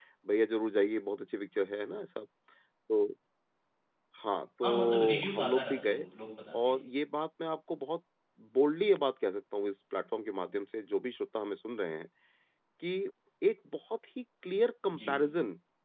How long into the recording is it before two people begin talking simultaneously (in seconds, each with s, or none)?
4.6 s